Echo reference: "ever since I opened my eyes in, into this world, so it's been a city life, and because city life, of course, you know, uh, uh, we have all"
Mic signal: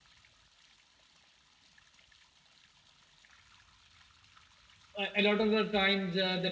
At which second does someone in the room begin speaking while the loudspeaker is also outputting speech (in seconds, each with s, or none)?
5.0 s